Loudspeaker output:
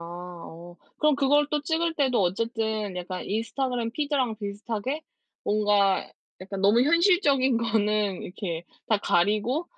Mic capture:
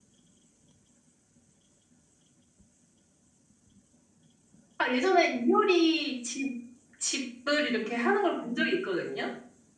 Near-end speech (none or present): present